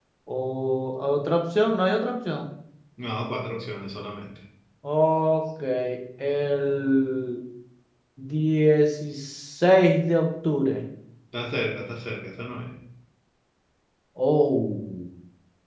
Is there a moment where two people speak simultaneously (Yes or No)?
No